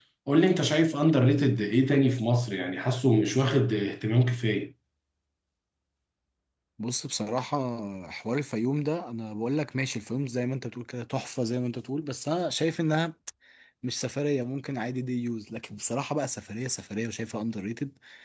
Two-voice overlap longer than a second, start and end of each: none

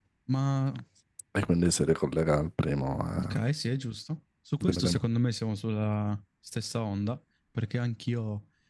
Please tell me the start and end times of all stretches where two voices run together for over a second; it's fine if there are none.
none

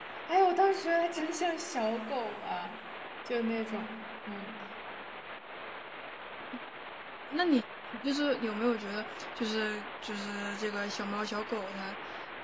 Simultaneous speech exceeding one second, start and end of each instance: none

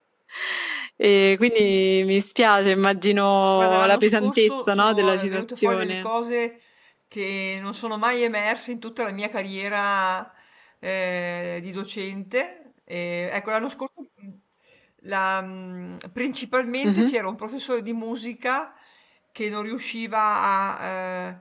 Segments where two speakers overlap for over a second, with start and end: 3.6-6.1

